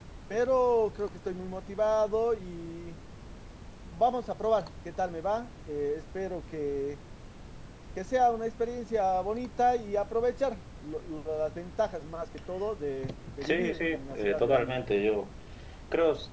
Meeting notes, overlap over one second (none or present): present